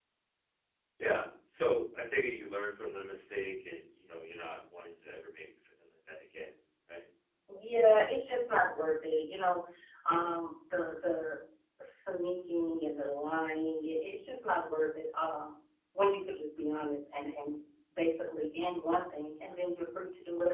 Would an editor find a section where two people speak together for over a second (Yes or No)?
No